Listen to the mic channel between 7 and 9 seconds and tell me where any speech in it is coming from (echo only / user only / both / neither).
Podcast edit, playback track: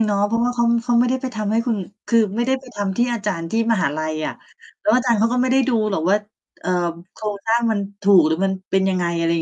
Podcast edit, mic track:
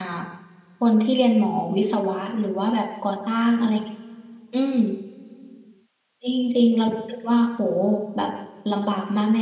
user only